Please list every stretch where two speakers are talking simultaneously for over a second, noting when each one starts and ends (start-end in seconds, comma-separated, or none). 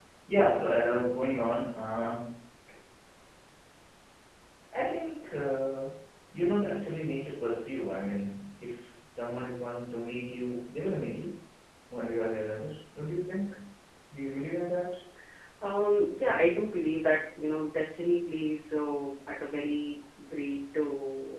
none